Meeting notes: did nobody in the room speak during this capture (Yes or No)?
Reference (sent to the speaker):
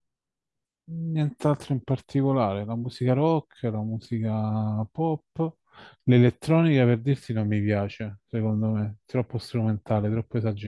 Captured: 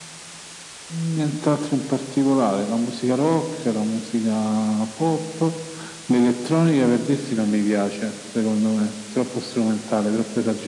Yes